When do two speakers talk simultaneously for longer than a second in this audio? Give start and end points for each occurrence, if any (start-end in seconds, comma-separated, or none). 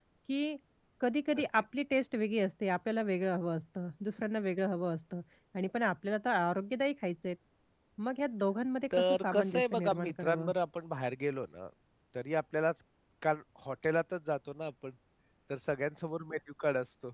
8.9-10.5